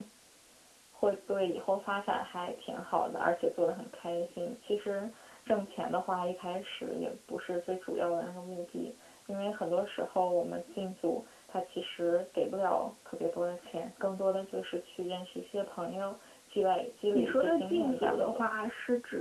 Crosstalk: present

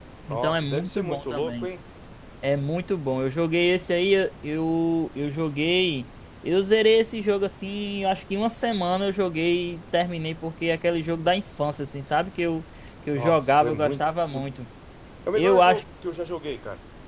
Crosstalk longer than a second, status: present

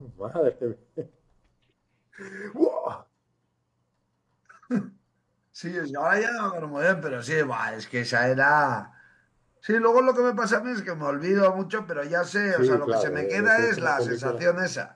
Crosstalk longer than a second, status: present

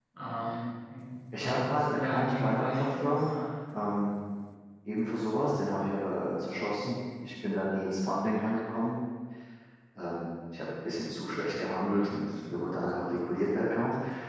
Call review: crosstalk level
present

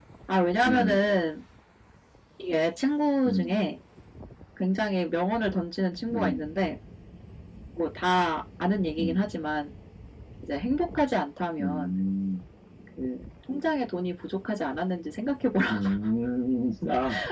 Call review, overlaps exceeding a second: none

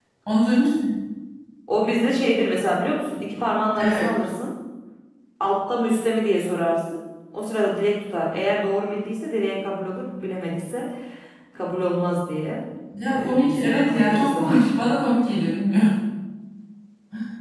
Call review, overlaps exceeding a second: present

